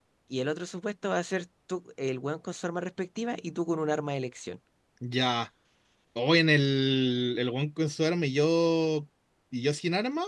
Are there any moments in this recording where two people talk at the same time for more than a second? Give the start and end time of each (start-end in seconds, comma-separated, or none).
none